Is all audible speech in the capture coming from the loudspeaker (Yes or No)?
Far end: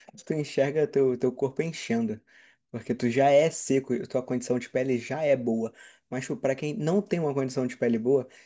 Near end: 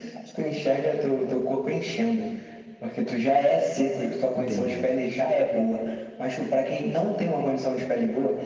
No